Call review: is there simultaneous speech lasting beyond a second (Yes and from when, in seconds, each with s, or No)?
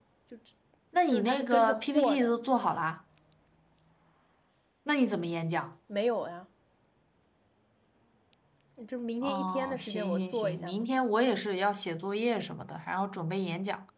Yes, from 1.1 s